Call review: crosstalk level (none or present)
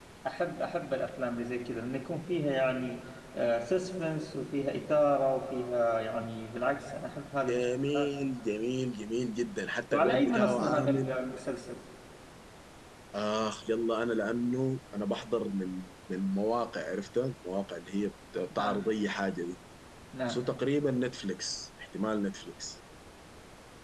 present